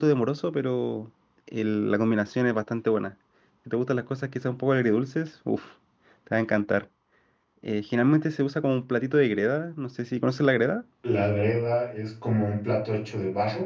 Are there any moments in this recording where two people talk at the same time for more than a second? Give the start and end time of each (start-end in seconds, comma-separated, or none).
none